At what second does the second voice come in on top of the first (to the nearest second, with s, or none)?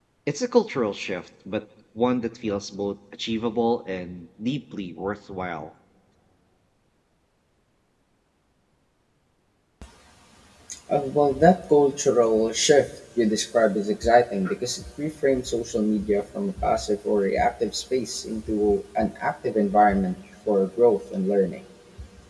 none